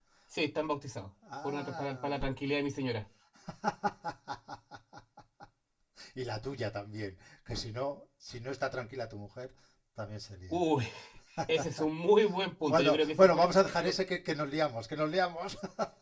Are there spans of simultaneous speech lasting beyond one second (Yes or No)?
Yes